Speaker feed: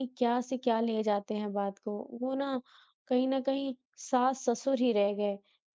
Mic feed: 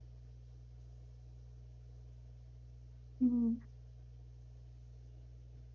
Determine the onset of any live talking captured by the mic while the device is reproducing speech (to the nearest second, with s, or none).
3 s